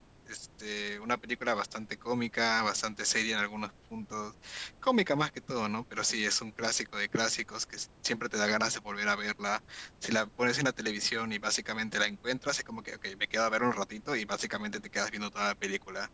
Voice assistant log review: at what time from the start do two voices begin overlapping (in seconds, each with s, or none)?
none